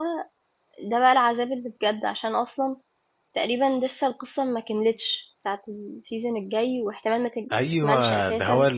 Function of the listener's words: taking over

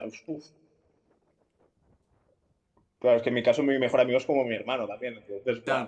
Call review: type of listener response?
taking over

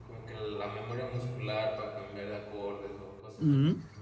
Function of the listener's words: taking over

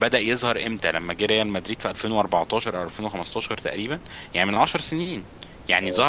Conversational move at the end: listening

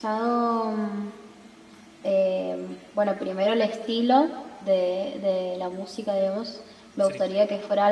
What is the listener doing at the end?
listening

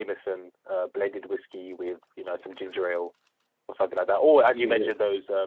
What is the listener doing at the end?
listening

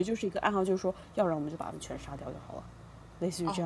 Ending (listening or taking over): taking over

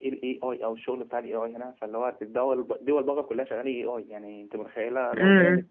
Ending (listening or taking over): listening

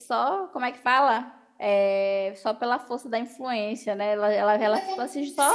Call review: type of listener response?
taking over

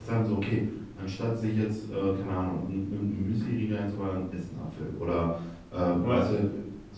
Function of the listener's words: listening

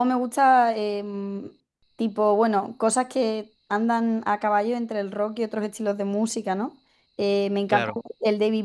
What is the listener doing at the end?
listening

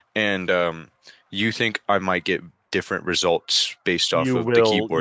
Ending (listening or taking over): taking over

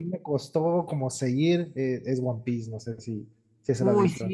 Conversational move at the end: taking over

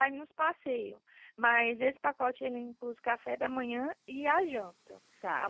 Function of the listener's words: taking over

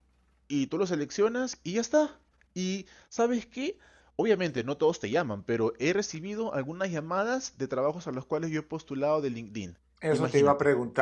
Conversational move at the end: taking over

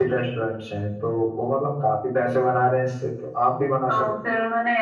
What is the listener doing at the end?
taking over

